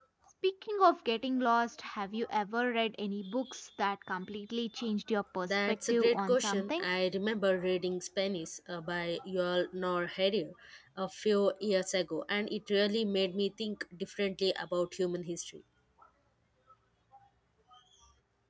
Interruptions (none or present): present